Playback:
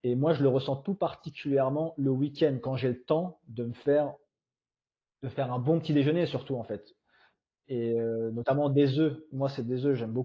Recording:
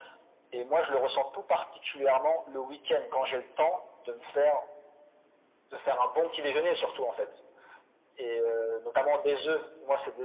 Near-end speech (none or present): none